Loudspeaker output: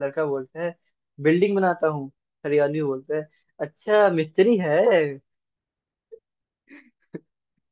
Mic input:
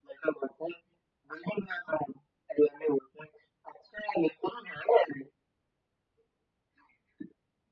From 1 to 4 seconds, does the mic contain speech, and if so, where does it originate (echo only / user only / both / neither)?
echo only